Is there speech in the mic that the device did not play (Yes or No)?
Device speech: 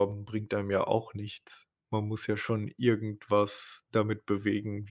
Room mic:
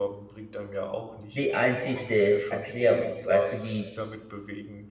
Yes